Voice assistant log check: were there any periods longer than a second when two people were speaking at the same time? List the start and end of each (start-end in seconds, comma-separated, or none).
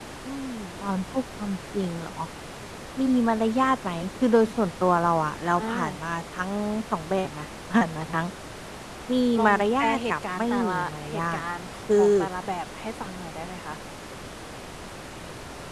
9.4-11.4